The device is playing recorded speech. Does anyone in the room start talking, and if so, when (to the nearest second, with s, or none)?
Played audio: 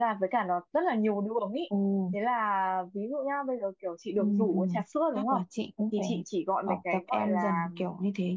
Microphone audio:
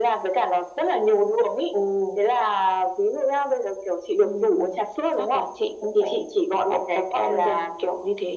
none